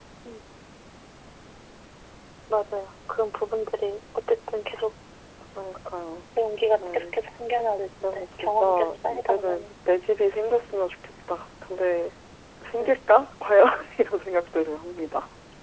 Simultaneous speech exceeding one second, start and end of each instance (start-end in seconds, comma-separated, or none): 8.0-9.7